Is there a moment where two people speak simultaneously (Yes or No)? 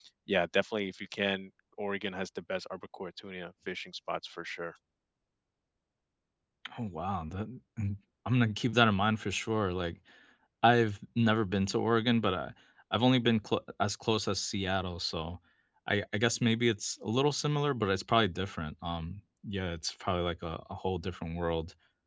No